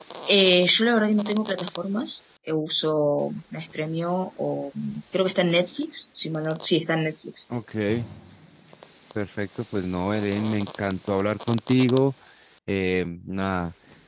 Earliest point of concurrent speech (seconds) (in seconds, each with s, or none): none